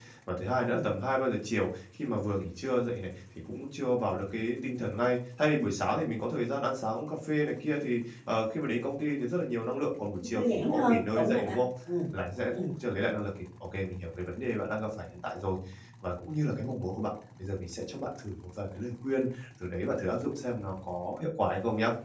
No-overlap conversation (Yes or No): No